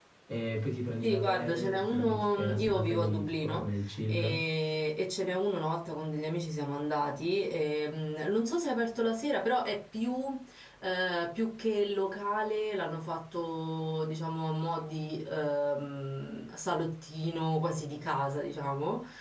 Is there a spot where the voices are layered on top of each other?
Yes, from 1.0 s

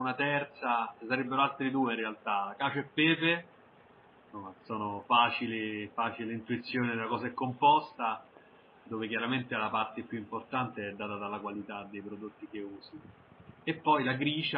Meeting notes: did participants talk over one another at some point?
No

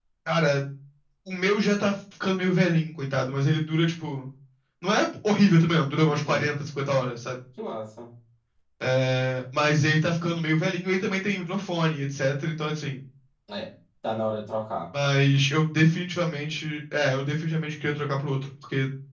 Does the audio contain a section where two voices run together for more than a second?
No

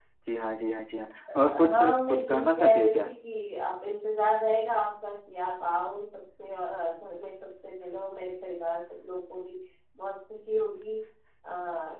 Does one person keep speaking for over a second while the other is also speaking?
Yes, from 1.6 s

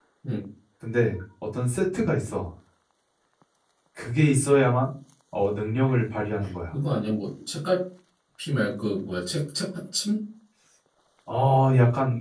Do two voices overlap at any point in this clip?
No

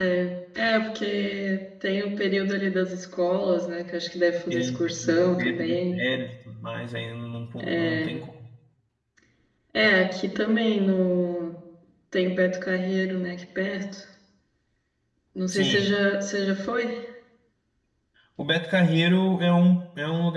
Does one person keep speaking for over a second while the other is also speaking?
Yes, from 4.5 s

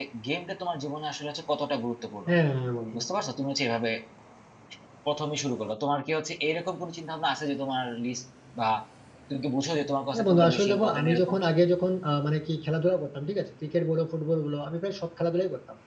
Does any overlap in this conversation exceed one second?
Yes, from 10.1 s

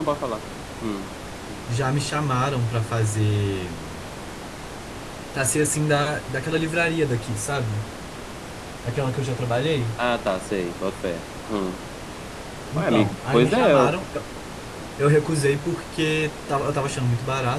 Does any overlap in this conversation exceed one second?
Yes, from 12.8 s

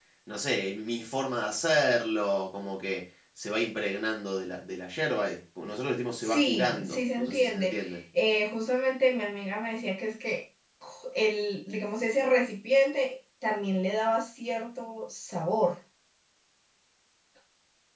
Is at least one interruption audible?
Yes, from 6.2 s

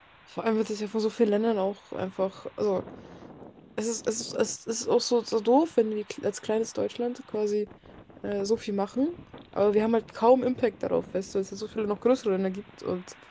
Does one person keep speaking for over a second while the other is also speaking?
No

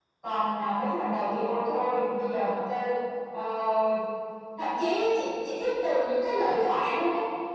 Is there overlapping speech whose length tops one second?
No

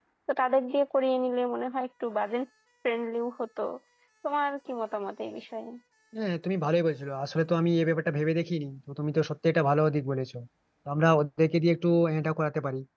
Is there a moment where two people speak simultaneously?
No

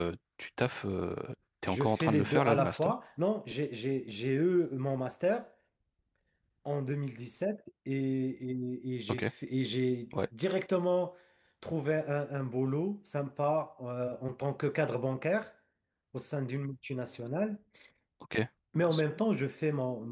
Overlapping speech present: Yes, from 1.7 s

